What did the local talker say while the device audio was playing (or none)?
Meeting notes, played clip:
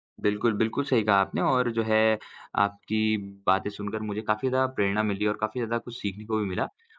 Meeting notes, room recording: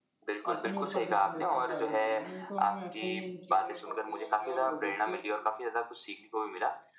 अपने ऊपर ध्यान देते हुए आगे बढ़ना है। नहीं तो हम ऐसे ही इन चीज़ों में फँसते जाएँगे और लोगो के